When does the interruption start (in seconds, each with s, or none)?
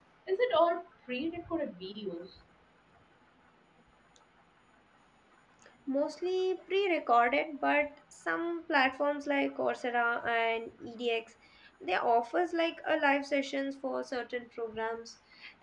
none